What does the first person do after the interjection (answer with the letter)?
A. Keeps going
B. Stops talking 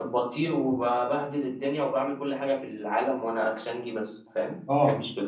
B